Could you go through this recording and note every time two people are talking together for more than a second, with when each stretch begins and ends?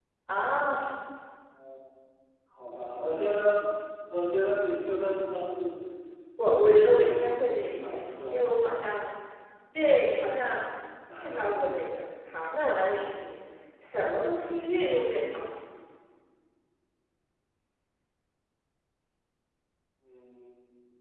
6.6-8.4

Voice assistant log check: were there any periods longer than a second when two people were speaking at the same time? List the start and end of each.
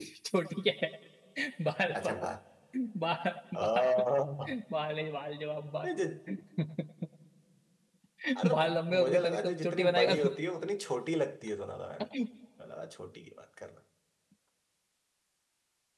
8.5-10.3

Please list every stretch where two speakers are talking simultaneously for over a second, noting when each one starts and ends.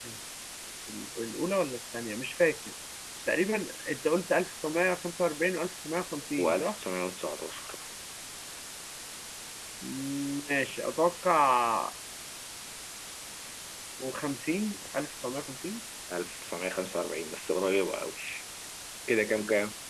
none

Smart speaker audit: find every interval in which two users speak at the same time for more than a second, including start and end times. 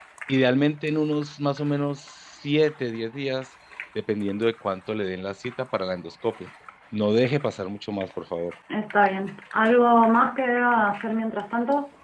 none

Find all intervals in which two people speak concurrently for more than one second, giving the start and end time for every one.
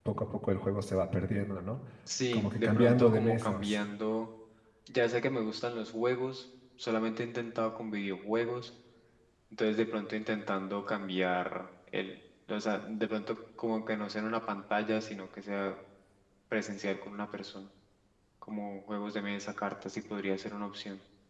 2.3-3.8

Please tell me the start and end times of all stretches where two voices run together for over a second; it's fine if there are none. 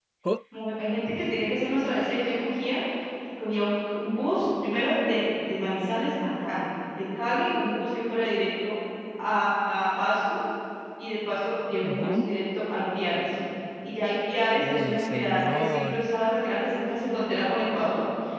14.7-16.1

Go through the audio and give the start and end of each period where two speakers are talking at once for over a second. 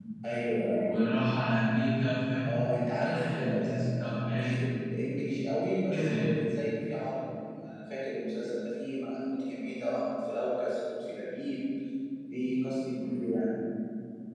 3.0-4.5

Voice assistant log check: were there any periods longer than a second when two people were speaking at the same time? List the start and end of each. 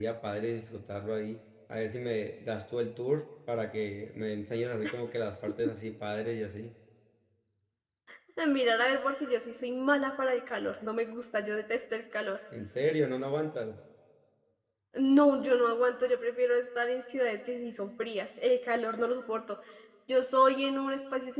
none

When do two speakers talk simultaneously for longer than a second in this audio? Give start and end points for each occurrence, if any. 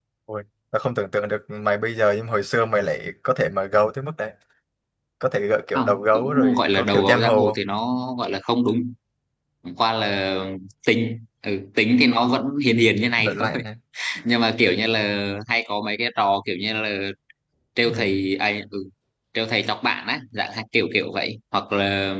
5.8-7.5

